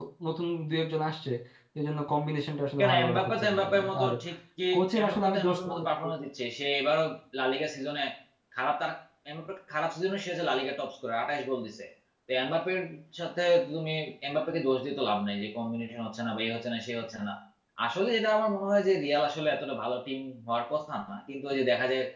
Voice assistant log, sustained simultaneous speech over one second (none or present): present